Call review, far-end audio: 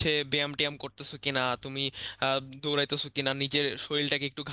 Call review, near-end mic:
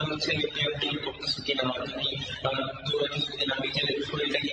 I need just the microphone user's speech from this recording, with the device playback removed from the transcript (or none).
none